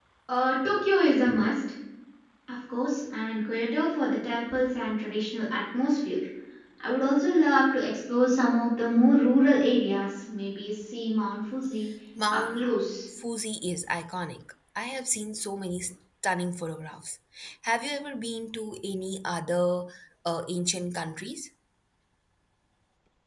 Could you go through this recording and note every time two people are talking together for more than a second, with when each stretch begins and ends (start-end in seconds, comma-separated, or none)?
none